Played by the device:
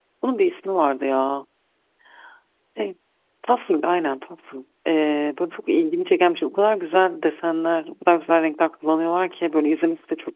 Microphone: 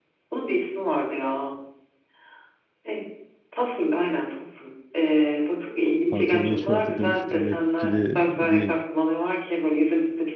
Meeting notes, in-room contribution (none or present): present